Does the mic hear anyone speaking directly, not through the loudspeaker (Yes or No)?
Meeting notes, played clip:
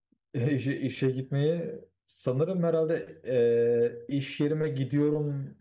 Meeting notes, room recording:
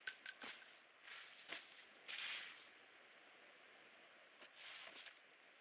No